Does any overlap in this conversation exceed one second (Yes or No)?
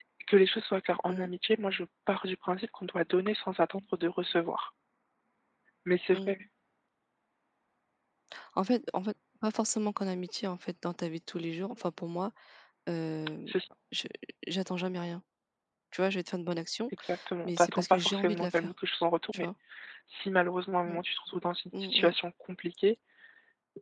Yes